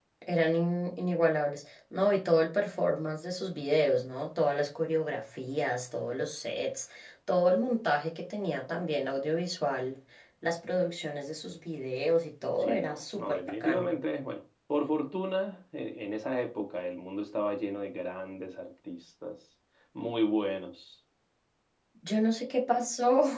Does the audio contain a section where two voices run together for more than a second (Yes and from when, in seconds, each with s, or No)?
Yes, from 12.6 s